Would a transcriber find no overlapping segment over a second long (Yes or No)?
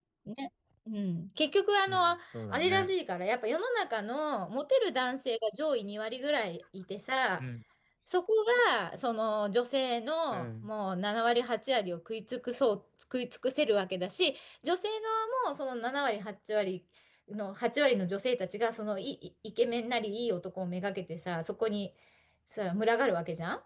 Yes